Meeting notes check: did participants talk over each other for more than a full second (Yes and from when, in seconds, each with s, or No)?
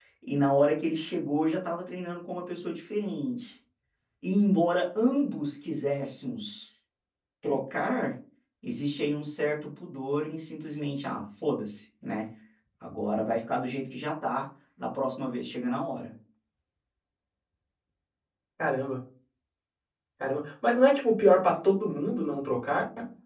No